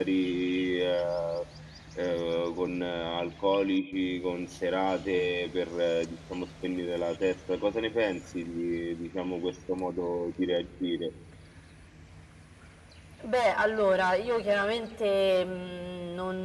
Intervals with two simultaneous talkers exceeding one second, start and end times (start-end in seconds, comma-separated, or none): none